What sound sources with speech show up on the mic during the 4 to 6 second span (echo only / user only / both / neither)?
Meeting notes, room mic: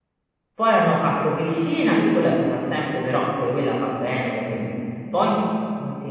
user only